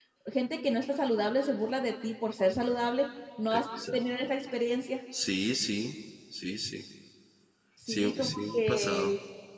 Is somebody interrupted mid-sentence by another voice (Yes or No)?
Yes